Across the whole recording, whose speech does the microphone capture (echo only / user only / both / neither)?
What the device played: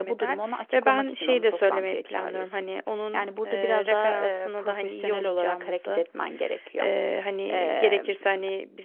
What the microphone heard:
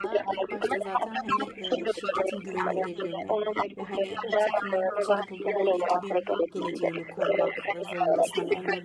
both